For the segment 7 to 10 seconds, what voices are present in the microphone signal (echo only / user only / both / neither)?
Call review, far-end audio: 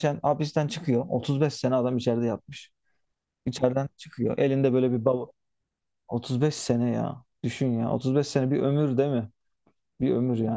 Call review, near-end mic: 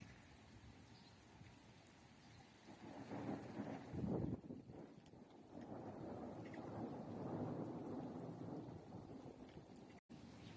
neither